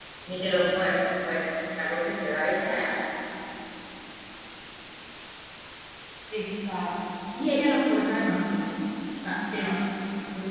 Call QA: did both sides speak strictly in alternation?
Yes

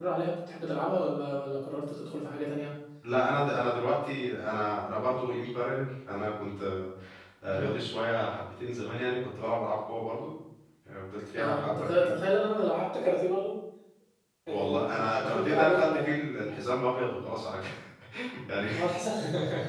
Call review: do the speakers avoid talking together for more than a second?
No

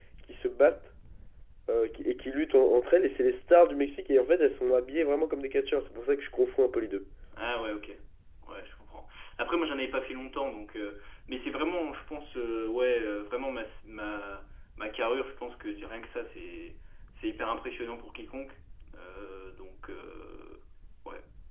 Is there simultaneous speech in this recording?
No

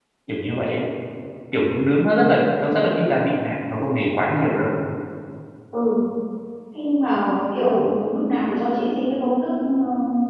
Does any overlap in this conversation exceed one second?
No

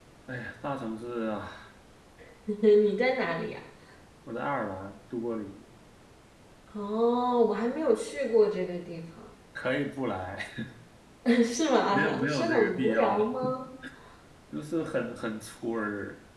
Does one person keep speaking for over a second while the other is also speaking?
Yes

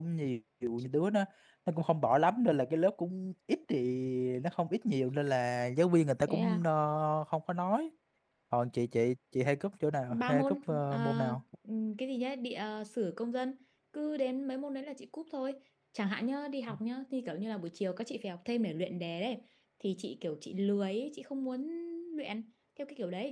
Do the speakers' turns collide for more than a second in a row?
Yes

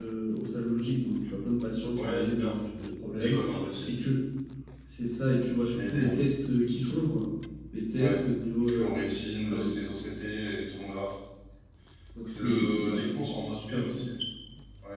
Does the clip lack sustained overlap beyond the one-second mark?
No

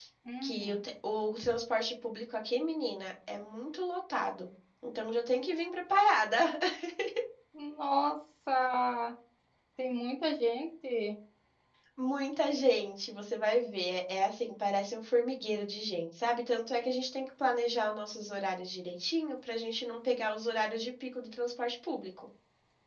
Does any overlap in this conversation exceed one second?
No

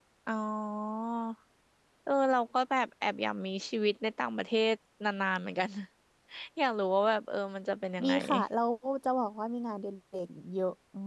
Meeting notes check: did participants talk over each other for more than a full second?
No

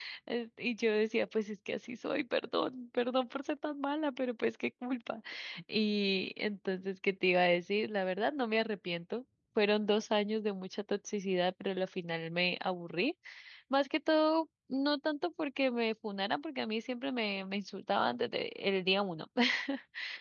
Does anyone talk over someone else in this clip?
No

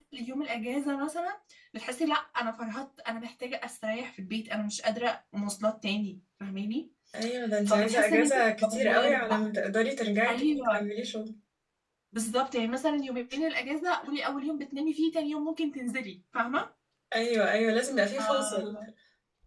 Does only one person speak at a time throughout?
No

